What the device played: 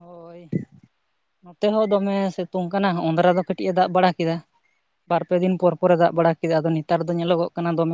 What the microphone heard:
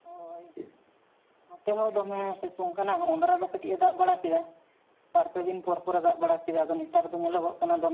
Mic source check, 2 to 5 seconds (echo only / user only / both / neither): echo only